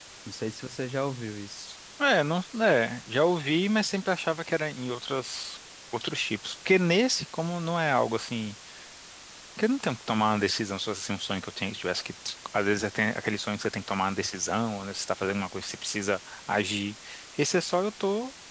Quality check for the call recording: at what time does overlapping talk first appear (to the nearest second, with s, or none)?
none